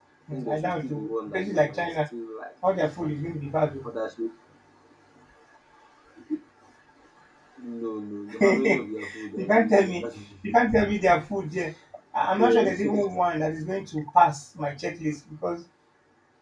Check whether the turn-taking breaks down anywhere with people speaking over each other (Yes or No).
Yes